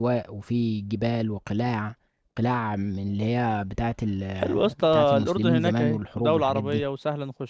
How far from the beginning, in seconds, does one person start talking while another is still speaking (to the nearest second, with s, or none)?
4 s